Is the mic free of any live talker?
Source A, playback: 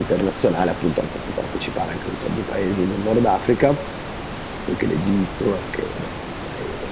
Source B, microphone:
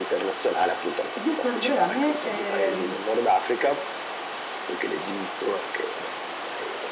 No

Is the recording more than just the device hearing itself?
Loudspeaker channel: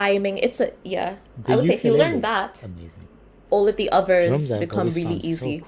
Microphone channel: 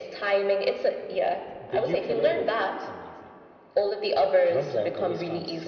No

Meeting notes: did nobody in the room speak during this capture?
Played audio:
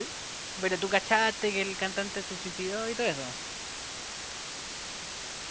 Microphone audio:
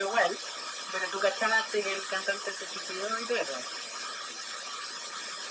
Yes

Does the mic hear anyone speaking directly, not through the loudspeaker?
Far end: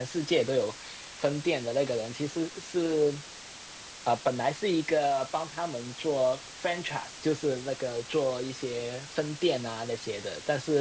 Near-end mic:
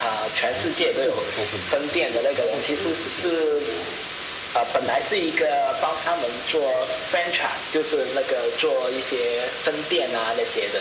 Yes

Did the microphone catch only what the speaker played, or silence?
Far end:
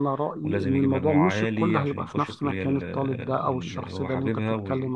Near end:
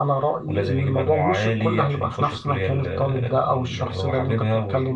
Yes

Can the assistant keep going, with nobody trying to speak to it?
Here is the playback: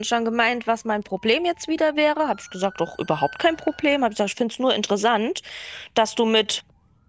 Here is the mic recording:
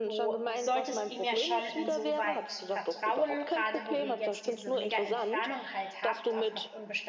No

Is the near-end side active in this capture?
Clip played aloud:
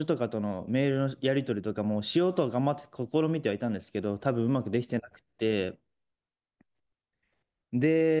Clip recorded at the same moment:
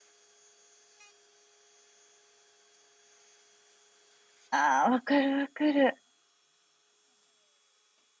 Yes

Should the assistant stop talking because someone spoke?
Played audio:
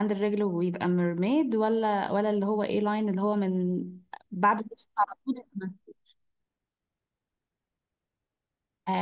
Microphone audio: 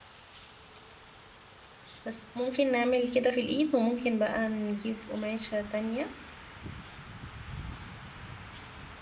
Yes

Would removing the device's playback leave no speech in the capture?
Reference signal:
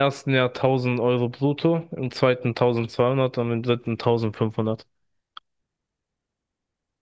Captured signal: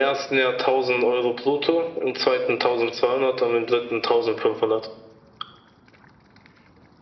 Yes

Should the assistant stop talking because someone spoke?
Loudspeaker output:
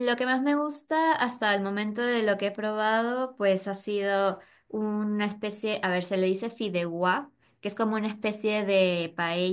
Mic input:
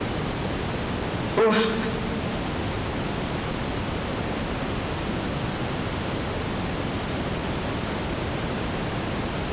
Yes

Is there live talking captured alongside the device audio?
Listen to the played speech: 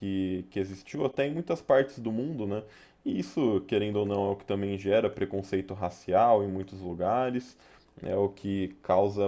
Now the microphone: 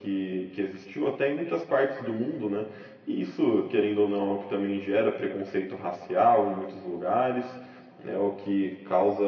No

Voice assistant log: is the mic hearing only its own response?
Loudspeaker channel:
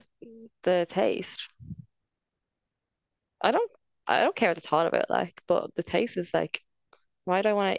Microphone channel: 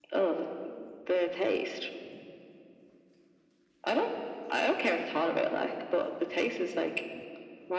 Yes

